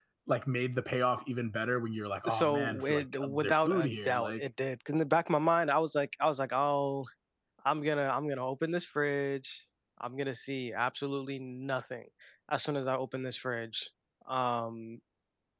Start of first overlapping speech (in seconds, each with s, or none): 2.3 s